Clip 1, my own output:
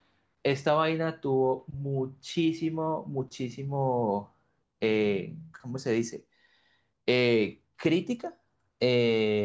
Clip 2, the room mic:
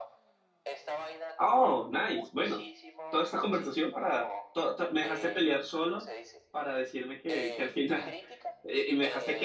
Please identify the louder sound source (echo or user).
user